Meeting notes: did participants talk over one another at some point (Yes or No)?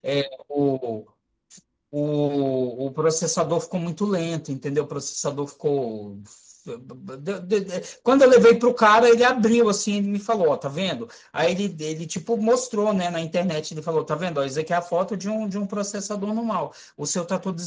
No